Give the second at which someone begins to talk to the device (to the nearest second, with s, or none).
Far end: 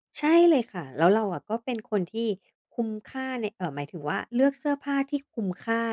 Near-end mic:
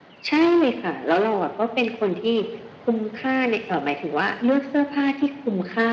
none